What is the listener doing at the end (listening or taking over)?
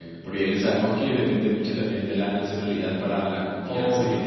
listening